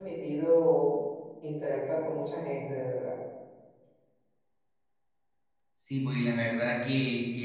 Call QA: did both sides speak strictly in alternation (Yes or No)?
Yes